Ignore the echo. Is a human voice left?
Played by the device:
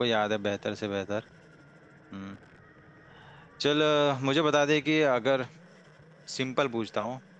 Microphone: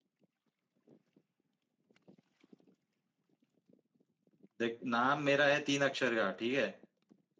Yes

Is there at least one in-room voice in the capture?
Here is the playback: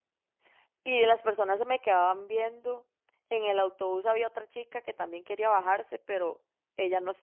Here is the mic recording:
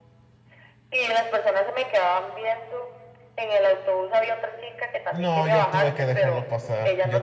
Yes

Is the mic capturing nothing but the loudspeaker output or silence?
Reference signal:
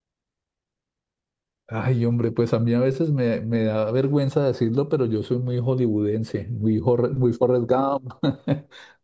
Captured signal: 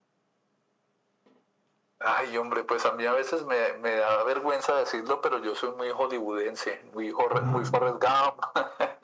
No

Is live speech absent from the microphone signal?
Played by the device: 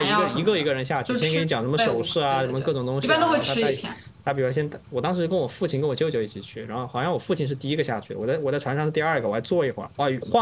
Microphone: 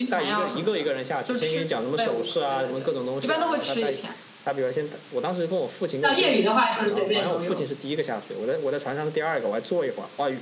No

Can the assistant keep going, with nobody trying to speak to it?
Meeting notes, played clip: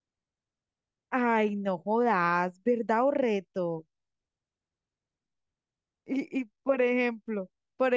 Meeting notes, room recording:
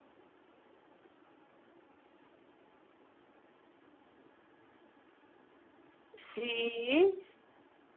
No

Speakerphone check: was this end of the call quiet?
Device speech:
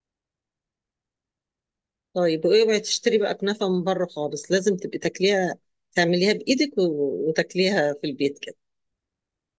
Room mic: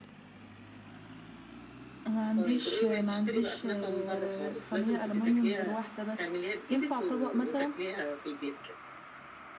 No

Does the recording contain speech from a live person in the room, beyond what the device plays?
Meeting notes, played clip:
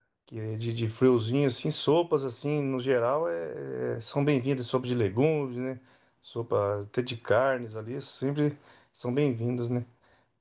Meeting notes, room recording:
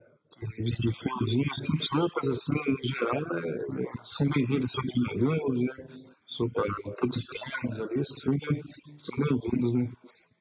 No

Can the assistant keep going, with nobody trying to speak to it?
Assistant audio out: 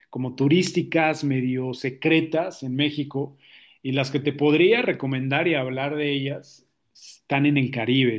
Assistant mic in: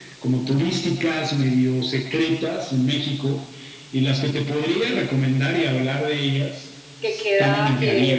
No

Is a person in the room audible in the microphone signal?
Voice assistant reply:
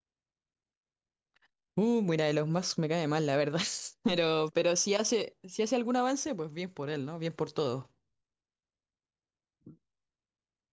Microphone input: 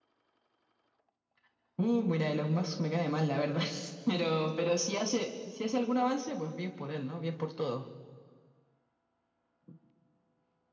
No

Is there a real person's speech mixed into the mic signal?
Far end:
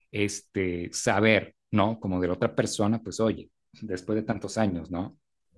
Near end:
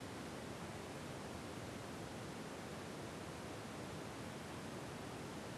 No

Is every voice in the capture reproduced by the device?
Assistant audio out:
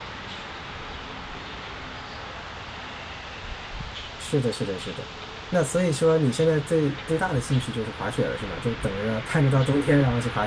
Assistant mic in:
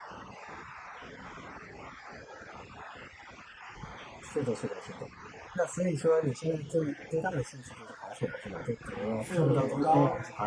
No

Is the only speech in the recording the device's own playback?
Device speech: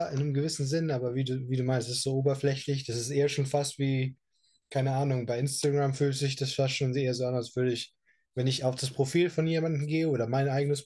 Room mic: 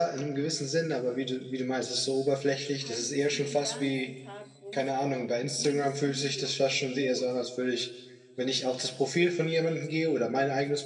No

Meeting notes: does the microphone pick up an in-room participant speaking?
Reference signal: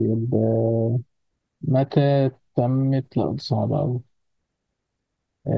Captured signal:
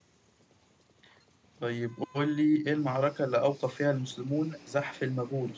Yes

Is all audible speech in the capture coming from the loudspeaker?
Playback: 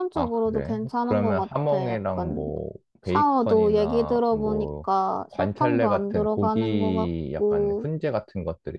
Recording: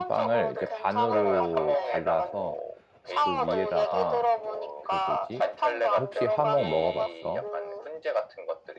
No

